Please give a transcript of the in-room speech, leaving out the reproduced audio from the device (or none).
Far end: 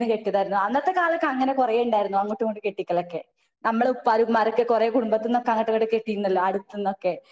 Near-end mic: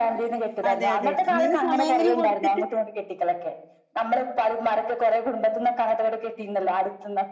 അതെ അതെ അങ്ങനെ സമയെങ്കിലും കൊടുത്തിട്ട്